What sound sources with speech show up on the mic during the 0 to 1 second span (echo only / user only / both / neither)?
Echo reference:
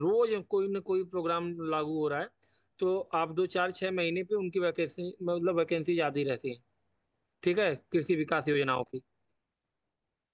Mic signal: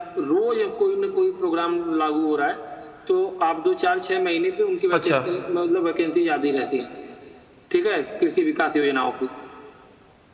echo only